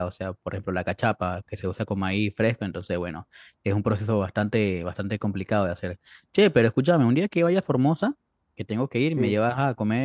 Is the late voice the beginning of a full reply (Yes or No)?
No